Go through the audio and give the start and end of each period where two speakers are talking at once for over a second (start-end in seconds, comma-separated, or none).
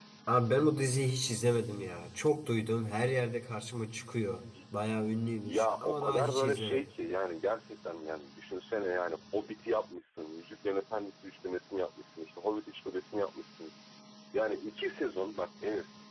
5.5-6.8